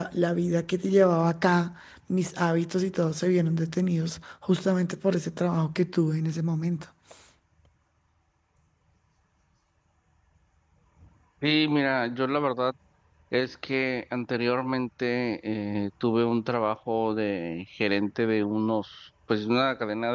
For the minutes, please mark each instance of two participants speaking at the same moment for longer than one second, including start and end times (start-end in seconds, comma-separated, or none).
none